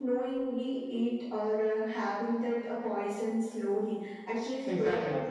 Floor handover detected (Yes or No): No